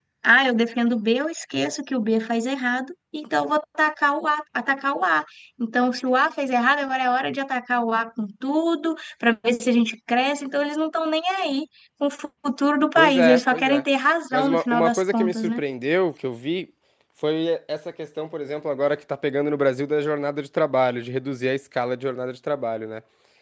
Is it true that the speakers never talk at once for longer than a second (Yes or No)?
No